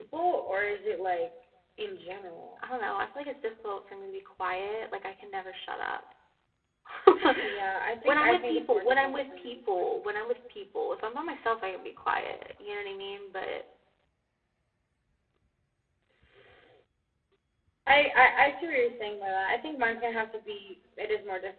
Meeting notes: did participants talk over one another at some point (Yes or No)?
Yes